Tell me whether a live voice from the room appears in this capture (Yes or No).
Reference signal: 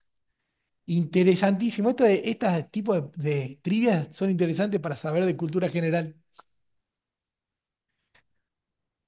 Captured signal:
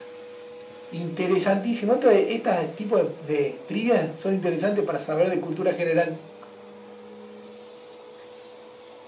No